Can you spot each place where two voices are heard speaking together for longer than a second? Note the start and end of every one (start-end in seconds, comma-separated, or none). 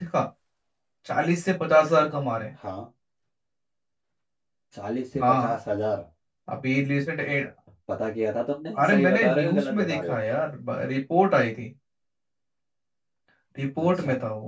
8.8-10.2